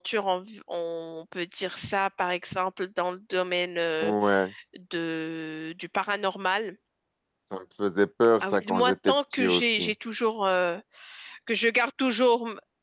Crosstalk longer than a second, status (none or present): present